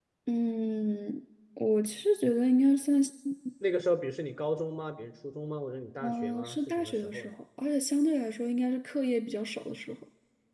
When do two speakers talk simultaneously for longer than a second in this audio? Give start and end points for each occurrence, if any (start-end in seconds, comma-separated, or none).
6.0-7.3